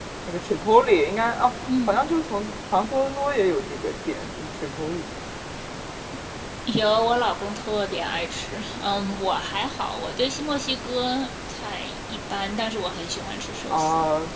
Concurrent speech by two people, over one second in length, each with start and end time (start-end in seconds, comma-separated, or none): none